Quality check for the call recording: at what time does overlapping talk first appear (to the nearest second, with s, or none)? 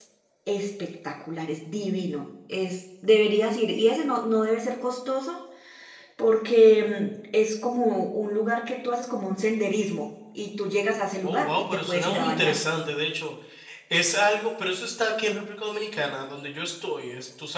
11 s